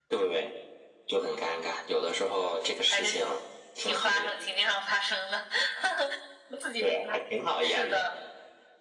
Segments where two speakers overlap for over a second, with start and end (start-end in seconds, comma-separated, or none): none